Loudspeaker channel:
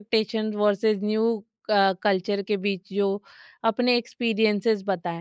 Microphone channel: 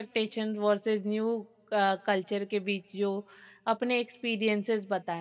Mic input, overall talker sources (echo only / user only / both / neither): echo only